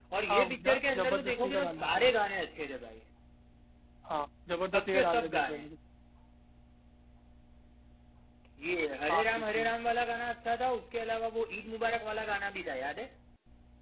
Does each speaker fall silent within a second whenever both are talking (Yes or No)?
No